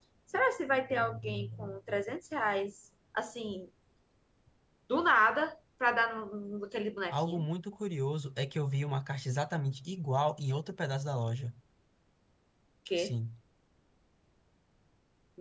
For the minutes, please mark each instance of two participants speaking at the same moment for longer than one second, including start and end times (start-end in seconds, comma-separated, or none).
none